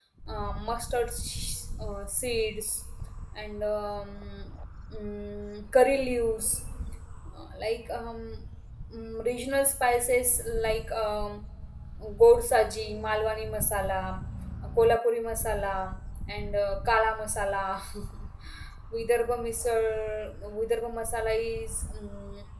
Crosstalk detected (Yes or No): No